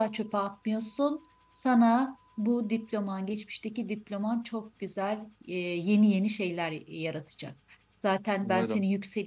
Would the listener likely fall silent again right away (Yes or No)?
Yes